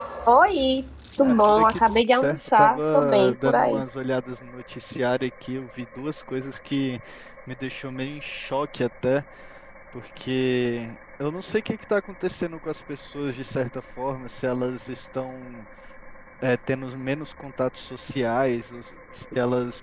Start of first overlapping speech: 1.2 s

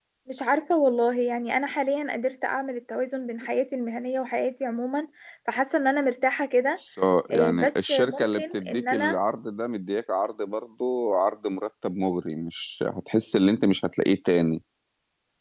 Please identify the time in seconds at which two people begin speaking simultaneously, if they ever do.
7.3 s

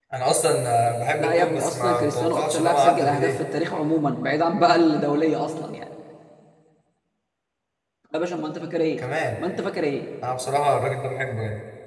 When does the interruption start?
1.2 s

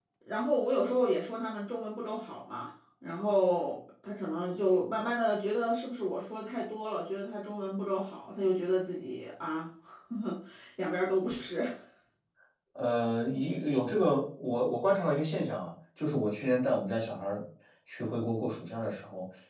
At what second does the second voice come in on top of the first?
none

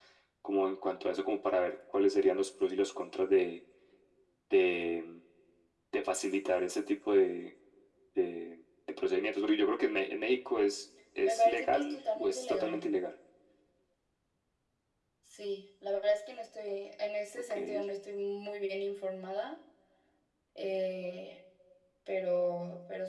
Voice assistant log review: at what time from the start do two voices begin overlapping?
11.2 s

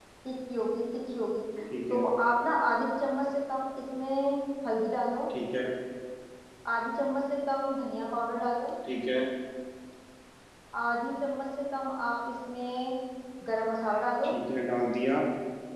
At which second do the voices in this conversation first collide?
none

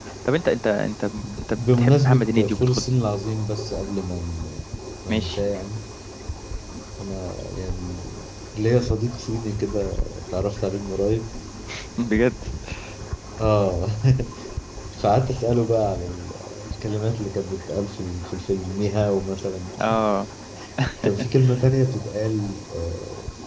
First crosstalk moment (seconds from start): 1.6 s

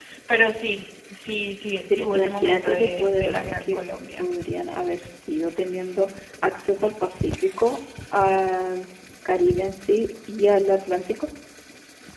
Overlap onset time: 1.9 s

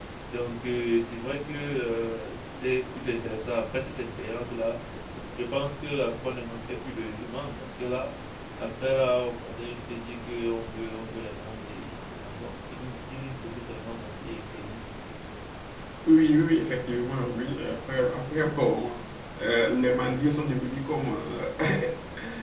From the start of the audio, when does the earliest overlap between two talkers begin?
none

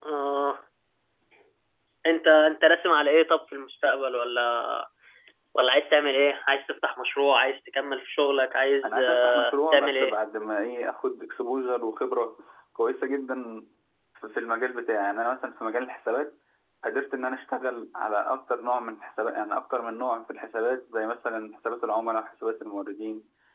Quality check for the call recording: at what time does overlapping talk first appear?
8.8 s

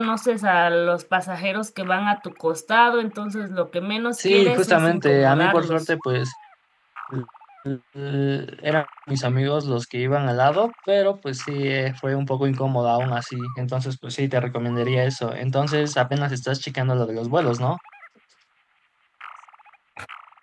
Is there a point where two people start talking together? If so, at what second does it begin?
4.2 s

